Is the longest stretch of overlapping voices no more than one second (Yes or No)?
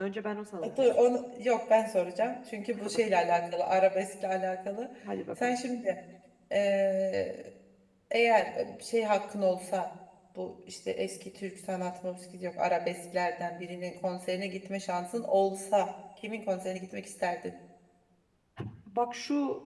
Yes